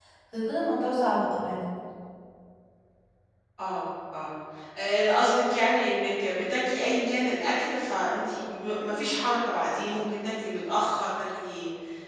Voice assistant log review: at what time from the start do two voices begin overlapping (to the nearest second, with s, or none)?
none